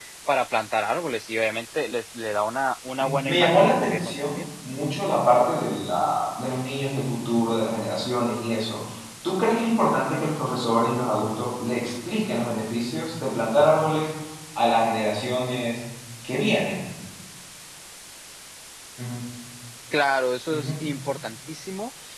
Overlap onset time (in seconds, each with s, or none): 3.0 s